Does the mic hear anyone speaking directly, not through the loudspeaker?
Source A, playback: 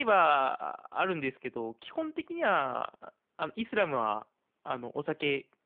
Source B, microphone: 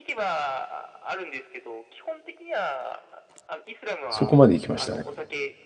Yes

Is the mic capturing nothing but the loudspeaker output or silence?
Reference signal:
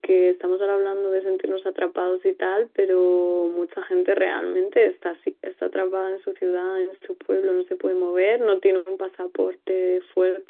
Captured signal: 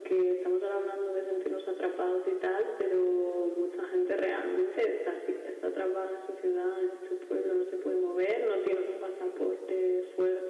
Yes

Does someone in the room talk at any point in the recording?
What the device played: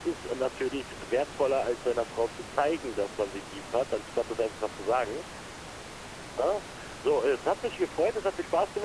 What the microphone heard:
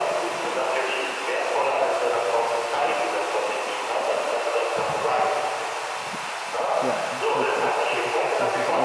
Yes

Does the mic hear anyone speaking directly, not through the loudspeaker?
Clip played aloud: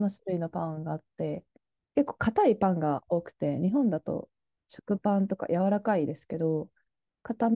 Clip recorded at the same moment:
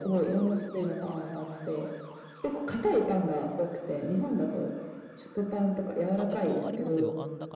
Yes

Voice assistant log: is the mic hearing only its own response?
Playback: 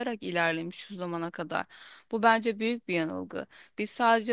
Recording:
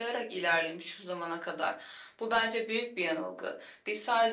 Yes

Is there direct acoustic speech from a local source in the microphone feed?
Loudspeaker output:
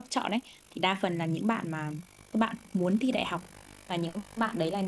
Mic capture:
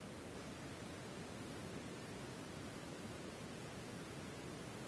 No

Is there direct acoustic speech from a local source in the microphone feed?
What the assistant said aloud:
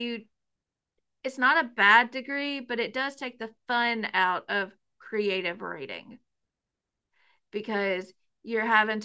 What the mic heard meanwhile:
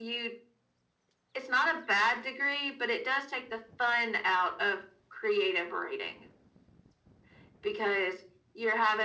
No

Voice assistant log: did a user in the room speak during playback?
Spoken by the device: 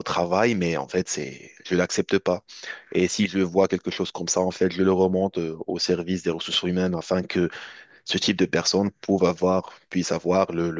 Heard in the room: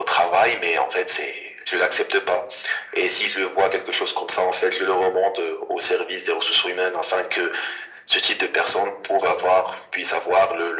No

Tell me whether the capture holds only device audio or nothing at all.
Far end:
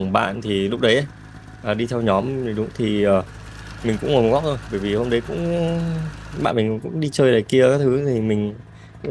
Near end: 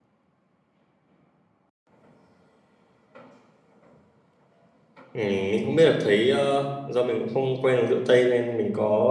No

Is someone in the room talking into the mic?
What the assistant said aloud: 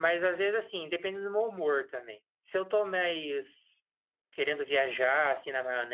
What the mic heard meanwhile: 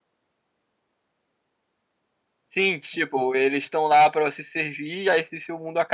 Yes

